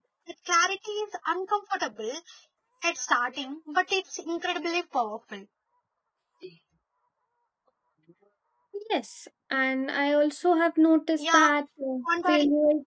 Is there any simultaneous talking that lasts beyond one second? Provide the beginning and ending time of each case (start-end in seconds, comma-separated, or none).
none